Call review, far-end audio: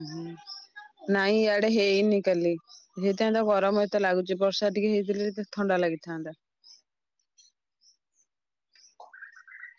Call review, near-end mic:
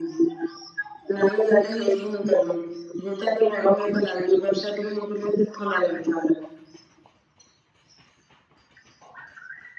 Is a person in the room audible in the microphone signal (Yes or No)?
No